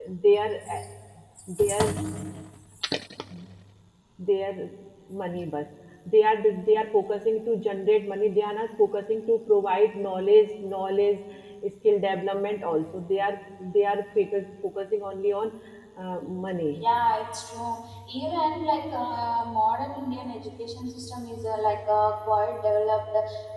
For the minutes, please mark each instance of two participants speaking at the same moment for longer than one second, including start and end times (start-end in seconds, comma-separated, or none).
none